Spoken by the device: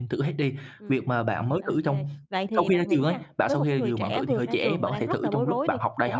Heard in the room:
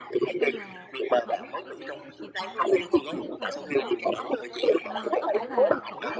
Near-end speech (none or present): present